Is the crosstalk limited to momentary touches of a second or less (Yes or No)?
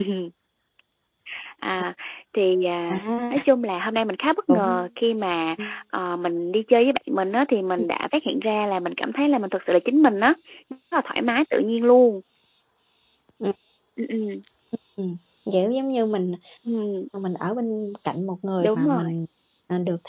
Yes